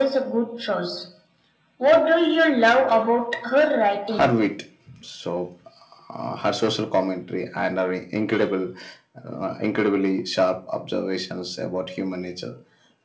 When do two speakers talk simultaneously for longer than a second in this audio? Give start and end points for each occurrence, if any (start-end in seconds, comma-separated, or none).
none